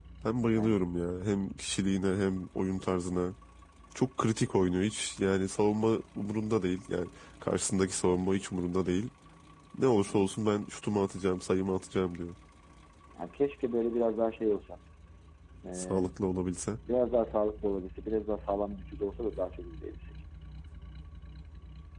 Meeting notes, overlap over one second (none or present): none